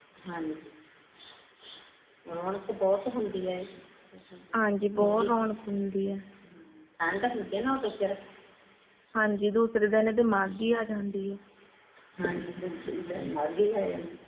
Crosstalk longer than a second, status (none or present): none